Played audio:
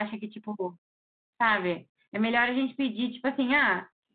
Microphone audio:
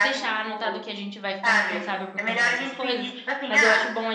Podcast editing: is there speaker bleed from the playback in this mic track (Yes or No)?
Yes